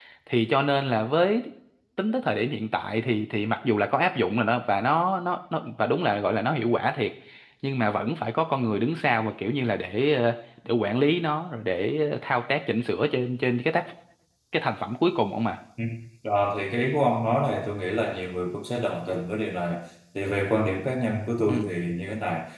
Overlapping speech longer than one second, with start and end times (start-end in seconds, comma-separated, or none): none